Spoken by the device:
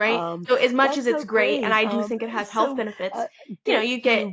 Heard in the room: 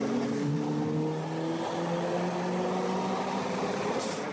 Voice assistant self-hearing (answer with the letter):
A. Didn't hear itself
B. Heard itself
A